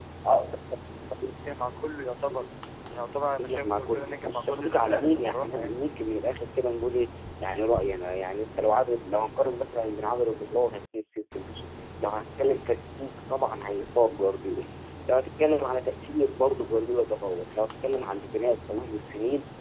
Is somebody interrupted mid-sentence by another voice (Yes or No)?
Yes